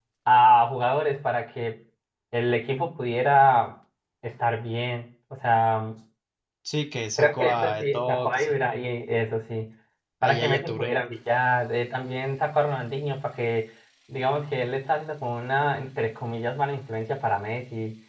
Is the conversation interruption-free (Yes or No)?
No